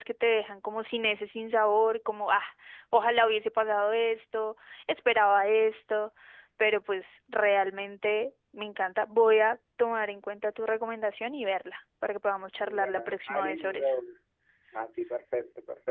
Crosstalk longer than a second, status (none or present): present